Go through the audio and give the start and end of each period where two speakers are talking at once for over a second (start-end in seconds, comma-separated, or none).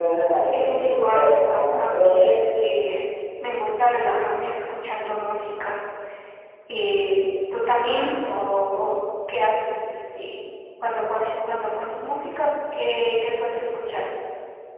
0.5-2.3